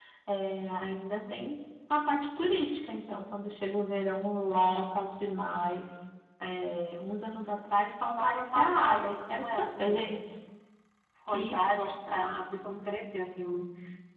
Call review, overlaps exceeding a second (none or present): present